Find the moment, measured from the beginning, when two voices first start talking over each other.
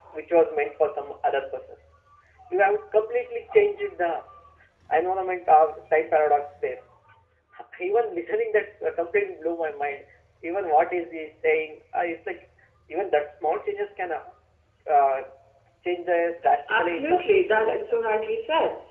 16.7 s

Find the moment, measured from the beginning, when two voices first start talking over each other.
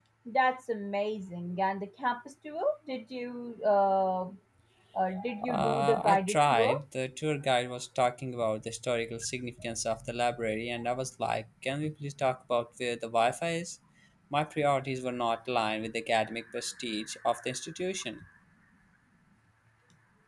5.5 s

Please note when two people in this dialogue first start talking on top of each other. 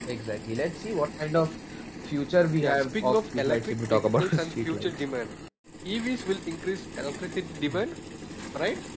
2.6 s

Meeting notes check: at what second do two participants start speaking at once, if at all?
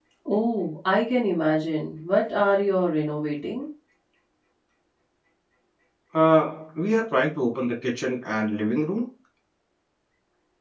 none

